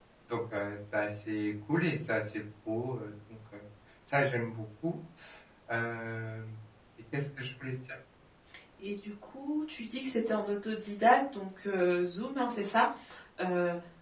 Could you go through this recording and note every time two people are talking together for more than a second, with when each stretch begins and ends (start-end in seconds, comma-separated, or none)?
none